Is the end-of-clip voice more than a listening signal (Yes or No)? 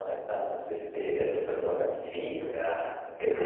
No